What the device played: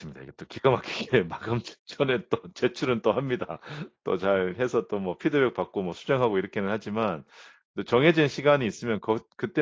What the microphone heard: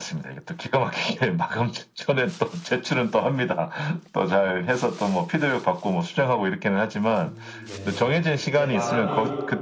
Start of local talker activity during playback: 7.1 s

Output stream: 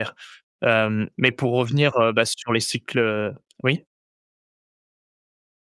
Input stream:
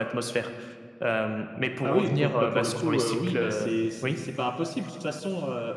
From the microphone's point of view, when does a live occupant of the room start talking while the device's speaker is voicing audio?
1.8 s

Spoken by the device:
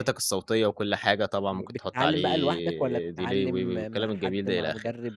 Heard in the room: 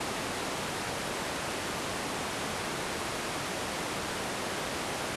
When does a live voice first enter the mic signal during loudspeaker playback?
none

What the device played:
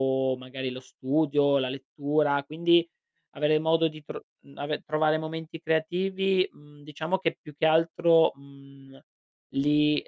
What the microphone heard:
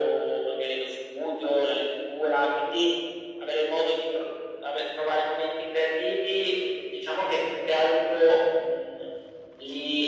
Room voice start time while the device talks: none

